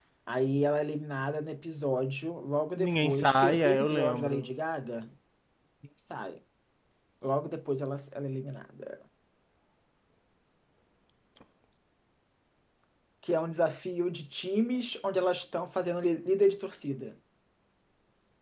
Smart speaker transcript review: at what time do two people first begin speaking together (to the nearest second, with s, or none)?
3 s